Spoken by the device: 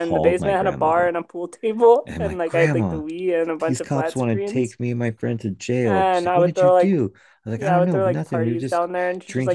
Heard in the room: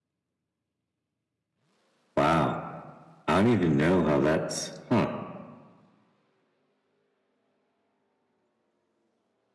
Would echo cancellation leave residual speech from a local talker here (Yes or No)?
Yes